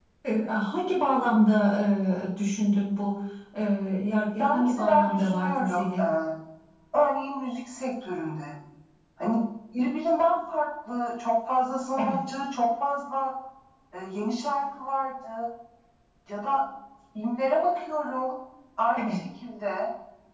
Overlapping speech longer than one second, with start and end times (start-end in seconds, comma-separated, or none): 4.4-6.0